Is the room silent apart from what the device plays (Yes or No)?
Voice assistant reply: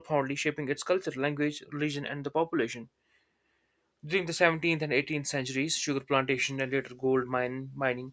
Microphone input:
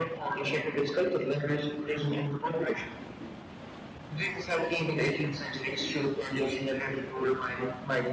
Yes